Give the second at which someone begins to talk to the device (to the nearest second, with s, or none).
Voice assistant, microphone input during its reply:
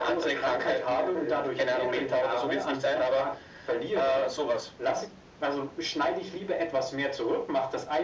none